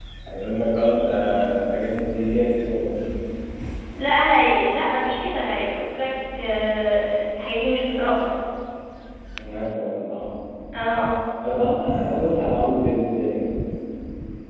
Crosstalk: none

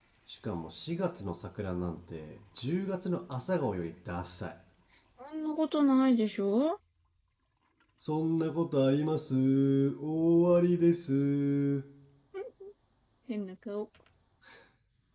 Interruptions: none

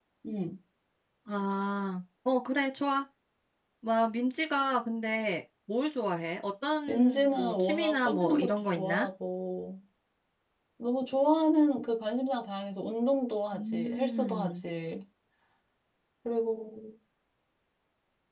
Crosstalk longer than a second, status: present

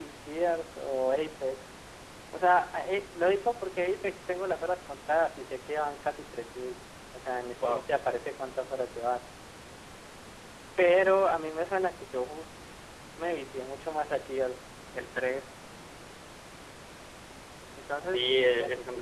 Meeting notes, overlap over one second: present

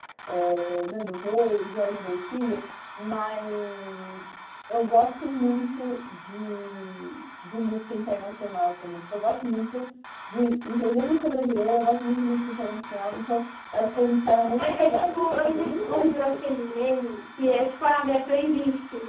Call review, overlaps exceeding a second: present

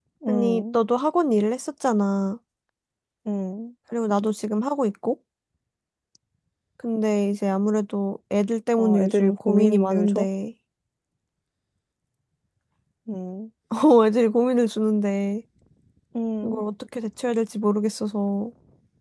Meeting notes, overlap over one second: present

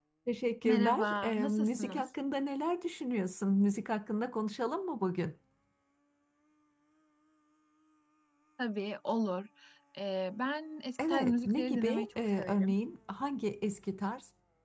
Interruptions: present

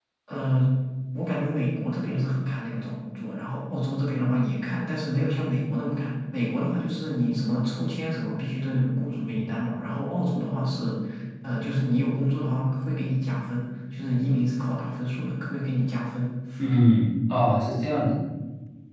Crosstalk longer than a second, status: none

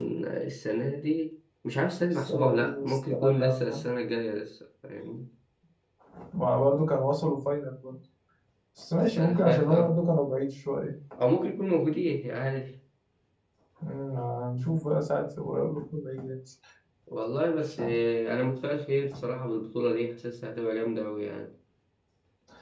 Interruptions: present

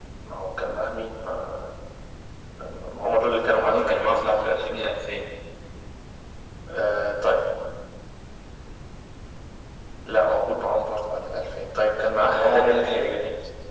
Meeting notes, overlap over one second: present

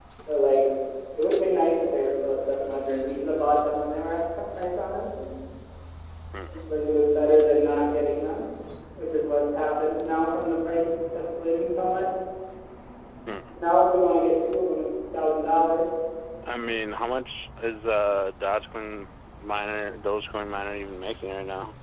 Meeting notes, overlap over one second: none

